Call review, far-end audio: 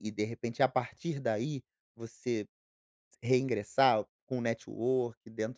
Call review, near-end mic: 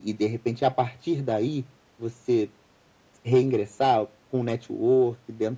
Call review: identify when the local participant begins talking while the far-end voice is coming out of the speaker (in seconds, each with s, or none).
none